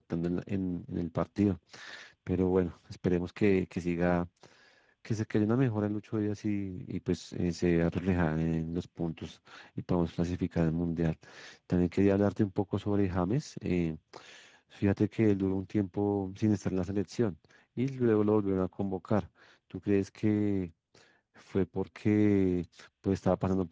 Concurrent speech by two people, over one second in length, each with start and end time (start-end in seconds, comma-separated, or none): none